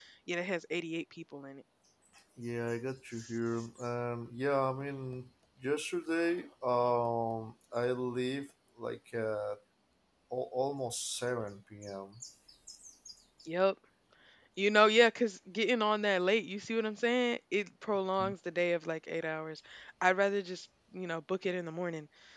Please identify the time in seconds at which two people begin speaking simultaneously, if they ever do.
none

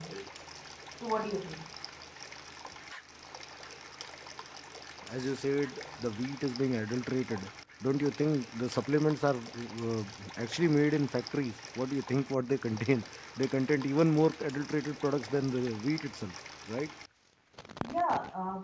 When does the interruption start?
none

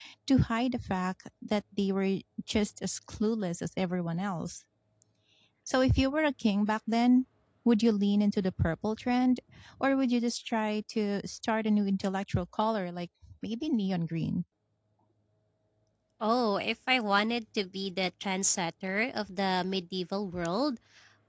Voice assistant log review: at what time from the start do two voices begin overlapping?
none

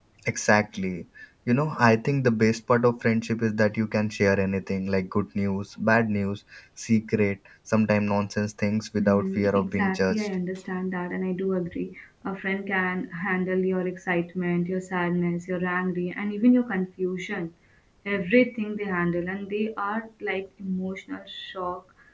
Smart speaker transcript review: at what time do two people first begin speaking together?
9.0 s

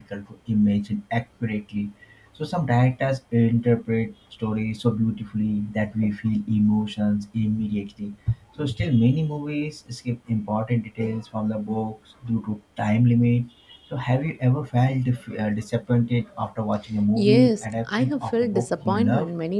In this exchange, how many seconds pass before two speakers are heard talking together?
17.2 s

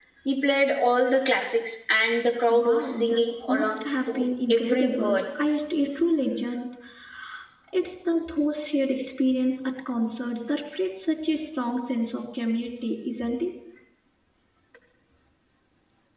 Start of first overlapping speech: 2.5 s

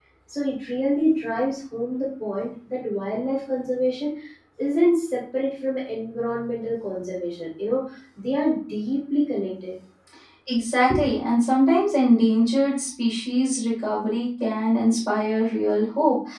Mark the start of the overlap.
none

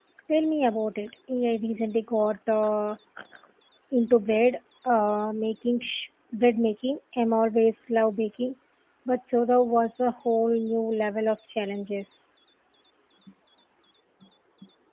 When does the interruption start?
none

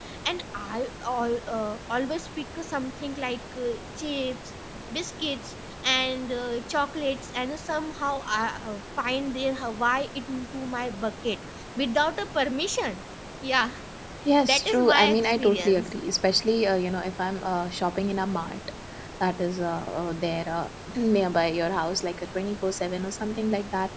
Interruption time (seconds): 14.4 s

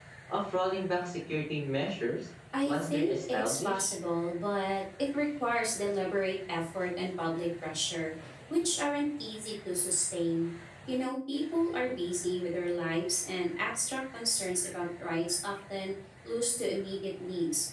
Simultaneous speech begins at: 2.5 s

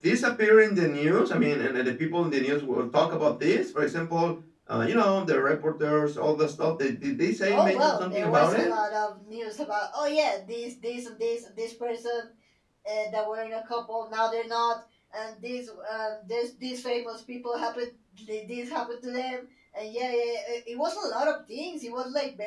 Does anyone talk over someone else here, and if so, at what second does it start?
7.5 s

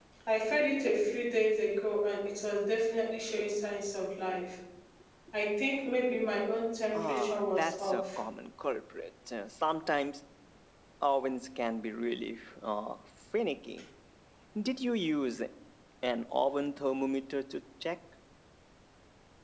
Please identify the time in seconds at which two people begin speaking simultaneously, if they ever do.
6.9 s

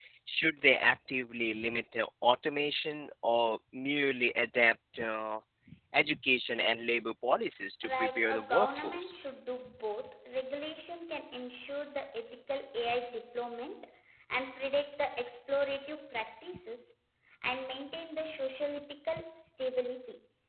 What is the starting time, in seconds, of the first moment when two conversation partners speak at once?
7.8 s

